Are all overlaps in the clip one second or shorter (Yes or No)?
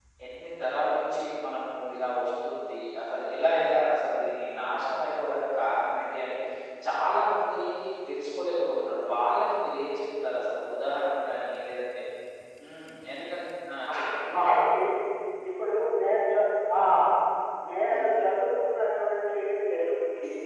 Yes